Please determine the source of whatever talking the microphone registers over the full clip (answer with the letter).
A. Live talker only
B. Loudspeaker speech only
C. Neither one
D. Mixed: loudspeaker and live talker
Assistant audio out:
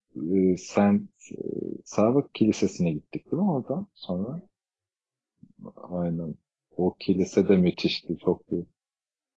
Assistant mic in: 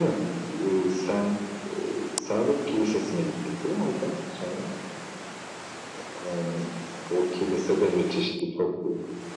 B